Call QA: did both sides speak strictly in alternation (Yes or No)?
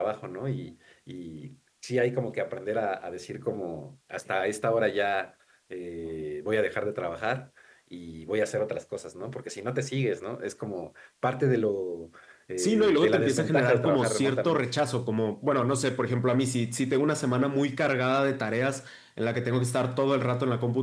No